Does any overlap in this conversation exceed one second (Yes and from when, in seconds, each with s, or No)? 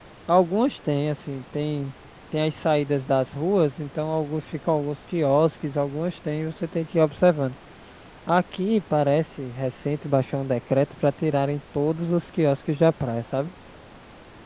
No